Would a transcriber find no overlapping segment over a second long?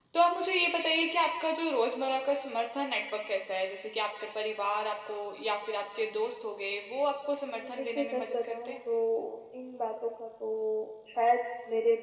No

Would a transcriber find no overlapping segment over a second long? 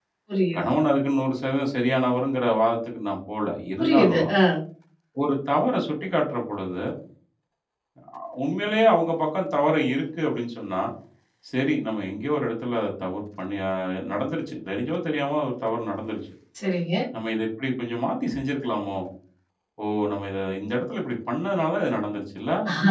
Yes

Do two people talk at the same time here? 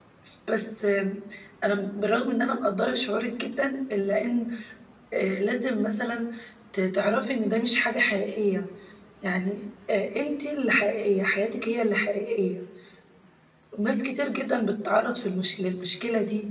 No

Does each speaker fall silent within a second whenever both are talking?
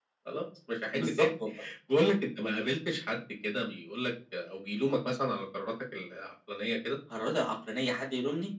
Yes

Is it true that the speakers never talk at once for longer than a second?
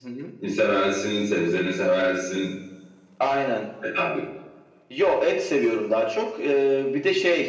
Yes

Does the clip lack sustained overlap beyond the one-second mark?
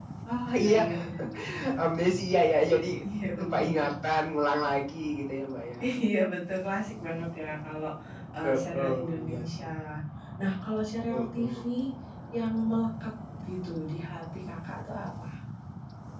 No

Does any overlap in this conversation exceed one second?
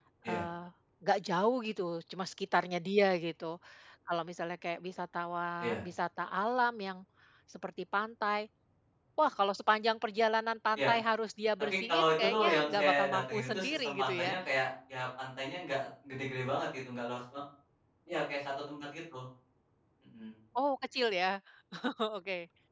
Yes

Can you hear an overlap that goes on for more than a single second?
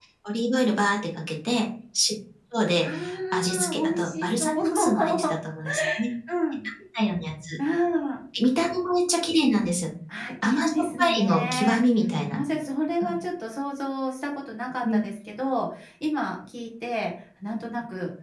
Yes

